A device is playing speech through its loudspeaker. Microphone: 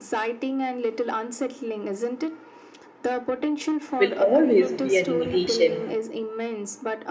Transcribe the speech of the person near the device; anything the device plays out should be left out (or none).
will always be an imitation,